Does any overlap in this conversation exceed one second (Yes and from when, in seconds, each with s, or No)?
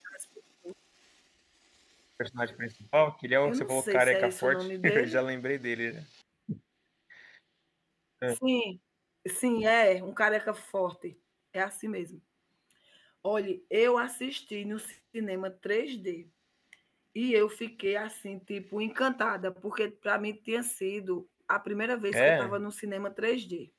Yes, from 3.4 s